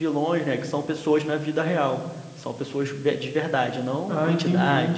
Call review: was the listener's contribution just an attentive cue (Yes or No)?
No